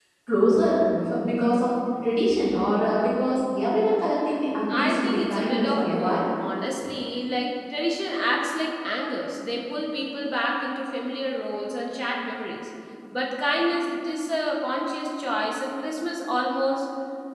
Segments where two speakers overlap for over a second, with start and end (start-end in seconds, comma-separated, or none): 4.7-6.3